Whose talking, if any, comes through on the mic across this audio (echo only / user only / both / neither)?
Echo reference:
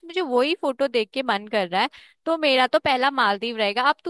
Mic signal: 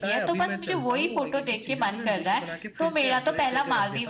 both